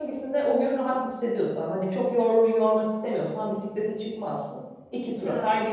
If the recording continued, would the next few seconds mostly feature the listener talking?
Yes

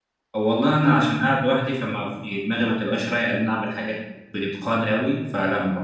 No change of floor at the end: Yes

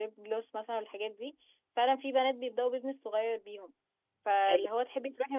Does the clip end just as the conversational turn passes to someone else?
No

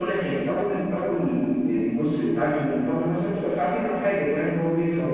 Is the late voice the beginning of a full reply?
No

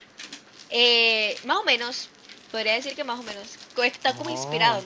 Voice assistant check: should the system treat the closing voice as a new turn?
No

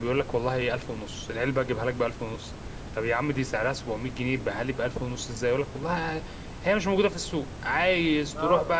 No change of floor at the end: Yes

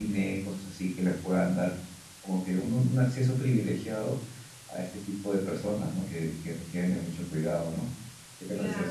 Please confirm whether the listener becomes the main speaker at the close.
Yes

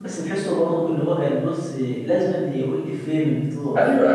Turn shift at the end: Yes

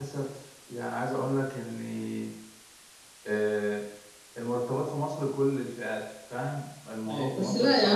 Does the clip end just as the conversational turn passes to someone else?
Yes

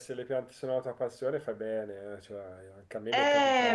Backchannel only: No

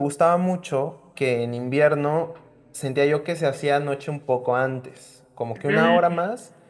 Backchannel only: Yes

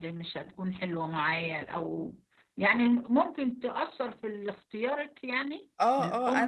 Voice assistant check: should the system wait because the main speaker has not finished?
No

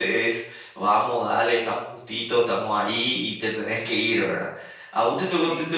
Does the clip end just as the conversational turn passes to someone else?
No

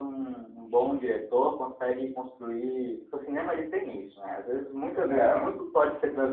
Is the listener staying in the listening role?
Yes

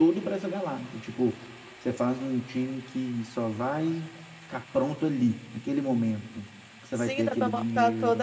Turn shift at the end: Yes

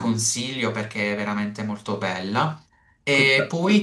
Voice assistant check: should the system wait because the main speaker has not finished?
Yes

